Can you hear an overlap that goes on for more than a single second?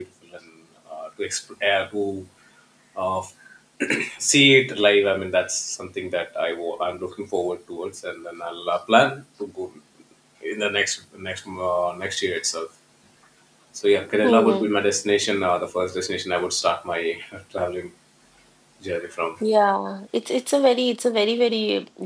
No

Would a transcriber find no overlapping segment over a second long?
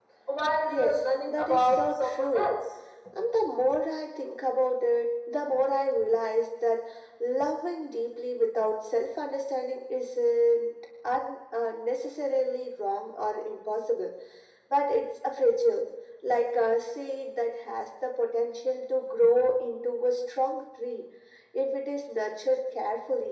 No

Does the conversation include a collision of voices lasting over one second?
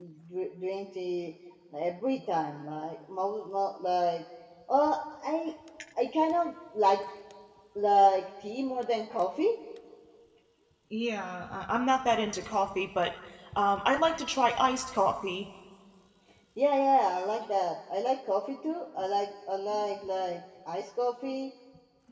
No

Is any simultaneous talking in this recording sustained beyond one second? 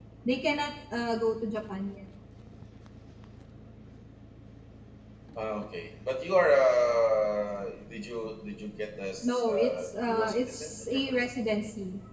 Yes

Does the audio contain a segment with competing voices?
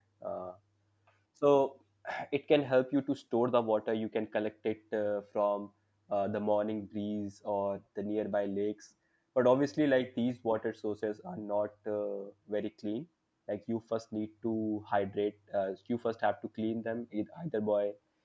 No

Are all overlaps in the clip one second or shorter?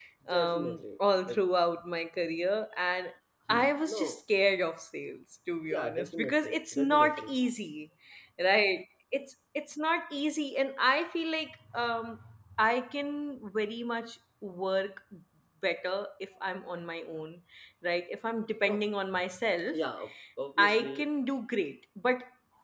No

